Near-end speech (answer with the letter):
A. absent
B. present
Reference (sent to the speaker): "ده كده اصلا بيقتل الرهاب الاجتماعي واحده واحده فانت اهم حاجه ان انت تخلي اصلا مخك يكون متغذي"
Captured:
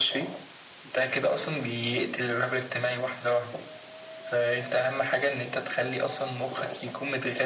A